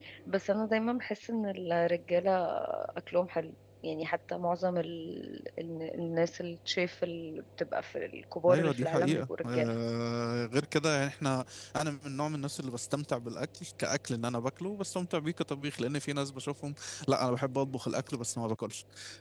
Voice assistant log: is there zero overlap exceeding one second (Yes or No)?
No